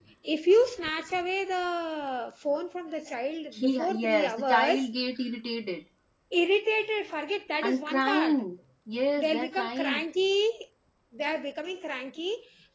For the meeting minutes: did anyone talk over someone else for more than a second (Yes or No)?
Yes